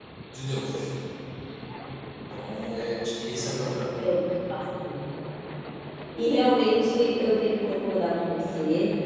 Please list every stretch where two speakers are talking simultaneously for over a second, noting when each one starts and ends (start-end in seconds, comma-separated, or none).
none